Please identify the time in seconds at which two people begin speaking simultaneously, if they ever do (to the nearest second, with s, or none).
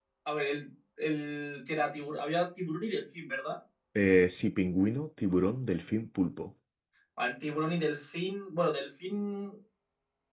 none